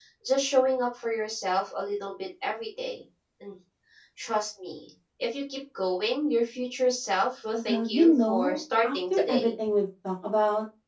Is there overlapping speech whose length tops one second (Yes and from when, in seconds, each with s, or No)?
Yes, from 7.6 s